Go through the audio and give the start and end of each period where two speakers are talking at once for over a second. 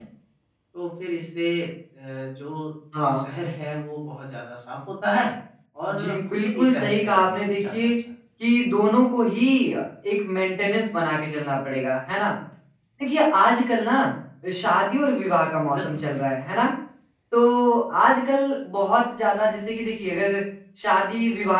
5.9-7.9

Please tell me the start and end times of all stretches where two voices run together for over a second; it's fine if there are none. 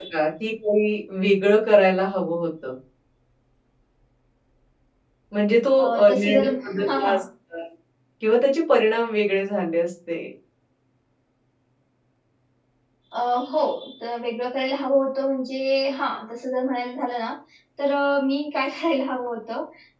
5.8-7.2

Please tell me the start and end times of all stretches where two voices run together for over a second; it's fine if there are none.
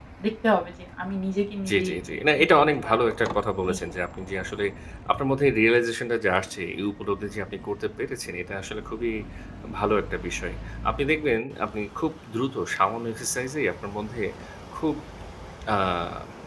1.7-3.0

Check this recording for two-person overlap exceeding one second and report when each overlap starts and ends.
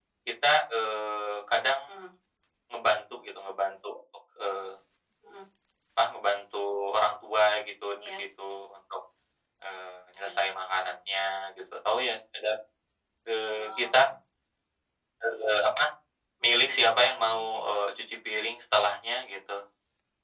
16.4-17.7

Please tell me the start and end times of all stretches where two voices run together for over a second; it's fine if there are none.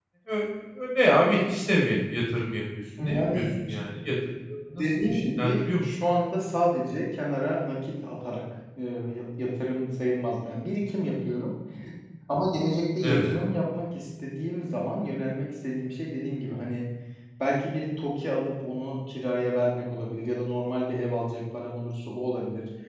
4.7-6.0

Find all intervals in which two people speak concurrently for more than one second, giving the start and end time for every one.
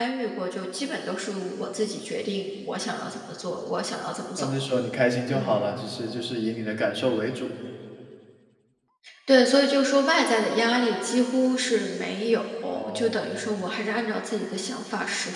none

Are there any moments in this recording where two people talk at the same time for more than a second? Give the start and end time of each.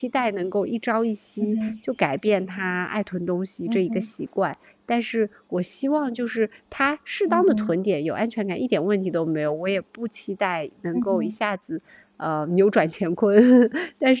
none

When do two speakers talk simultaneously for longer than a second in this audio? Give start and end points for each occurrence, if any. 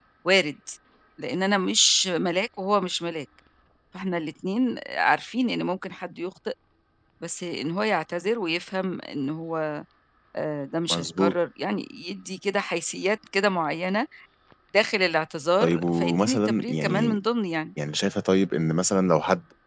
15.6-17.2

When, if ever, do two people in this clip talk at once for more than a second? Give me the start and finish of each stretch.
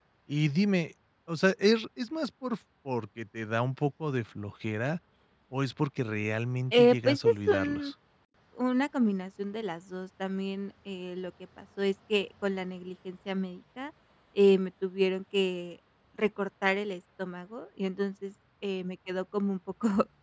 6.7-7.9

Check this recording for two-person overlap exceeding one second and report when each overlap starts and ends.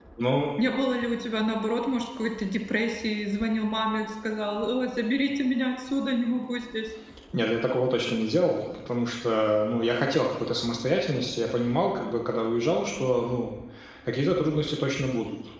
none

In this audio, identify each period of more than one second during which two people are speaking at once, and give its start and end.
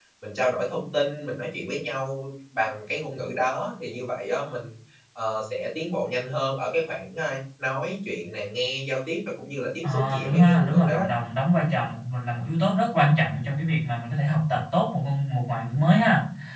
9.8-11.1

